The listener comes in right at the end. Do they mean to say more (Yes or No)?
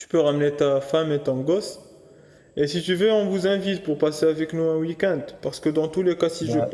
No